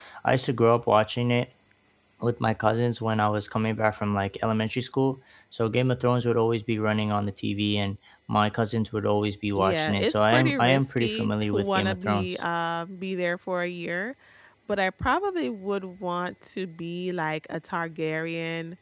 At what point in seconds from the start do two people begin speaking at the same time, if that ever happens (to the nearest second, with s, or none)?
10 s